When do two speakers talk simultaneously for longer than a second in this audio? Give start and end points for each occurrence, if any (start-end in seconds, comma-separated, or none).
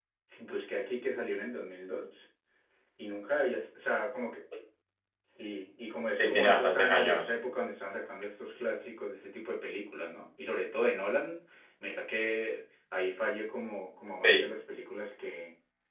6.1-7.3